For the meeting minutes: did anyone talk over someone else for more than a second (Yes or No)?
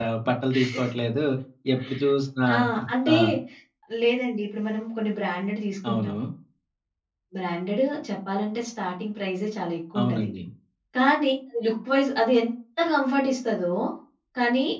No